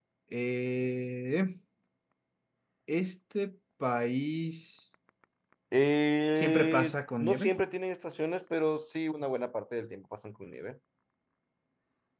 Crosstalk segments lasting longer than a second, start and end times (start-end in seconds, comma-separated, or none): 6.3-7.6